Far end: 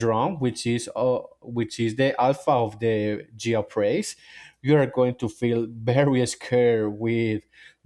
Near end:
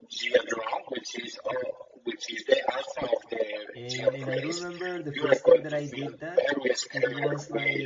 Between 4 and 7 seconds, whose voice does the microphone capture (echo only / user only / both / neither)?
both